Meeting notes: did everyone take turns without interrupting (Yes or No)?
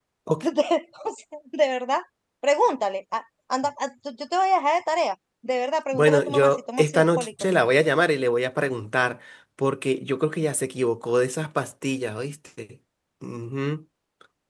No